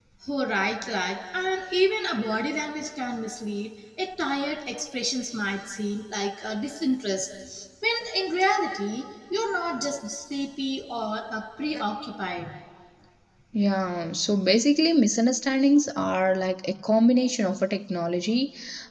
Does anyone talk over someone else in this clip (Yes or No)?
No